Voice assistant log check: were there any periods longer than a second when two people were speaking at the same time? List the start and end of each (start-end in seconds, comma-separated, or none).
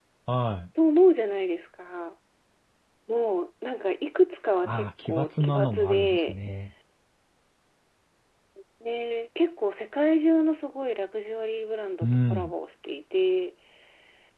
4.7-6.3